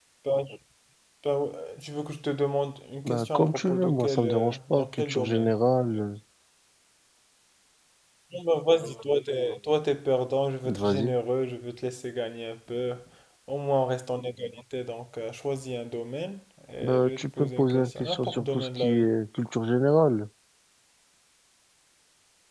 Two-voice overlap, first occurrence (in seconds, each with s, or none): 3.0 s